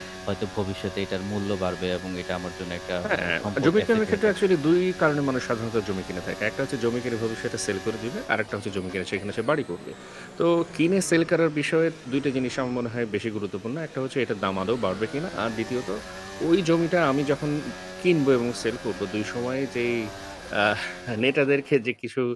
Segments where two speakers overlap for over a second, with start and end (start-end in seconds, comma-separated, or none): 3.0-4.3